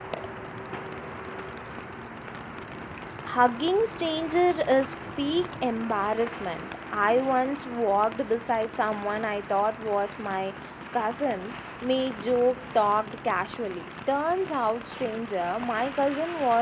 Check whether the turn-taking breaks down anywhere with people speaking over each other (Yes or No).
No